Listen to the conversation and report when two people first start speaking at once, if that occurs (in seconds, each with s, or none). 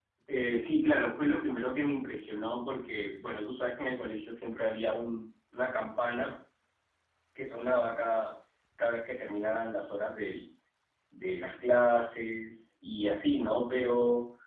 none